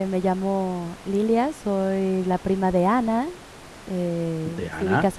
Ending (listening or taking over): listening